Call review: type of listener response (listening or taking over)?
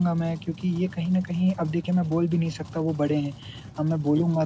listening